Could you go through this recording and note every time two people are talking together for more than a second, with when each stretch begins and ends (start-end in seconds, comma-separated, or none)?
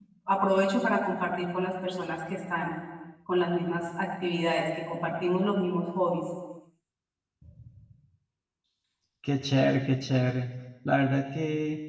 none